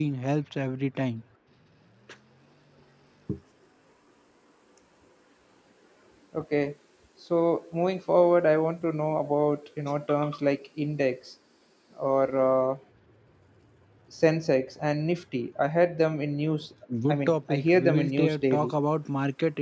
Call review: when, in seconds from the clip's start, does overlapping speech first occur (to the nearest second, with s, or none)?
17 s